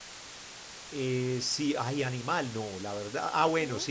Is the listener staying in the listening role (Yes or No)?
Yes